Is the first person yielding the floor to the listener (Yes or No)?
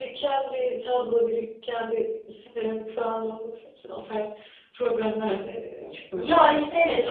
Yes